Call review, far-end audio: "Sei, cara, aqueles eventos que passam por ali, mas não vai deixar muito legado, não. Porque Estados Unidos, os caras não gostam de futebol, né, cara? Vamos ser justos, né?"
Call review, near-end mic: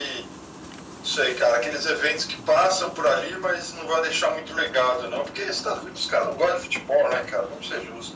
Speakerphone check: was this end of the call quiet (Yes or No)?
Yes